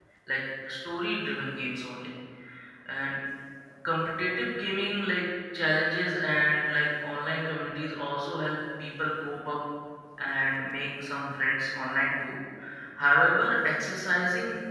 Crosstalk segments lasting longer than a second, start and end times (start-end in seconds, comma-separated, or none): none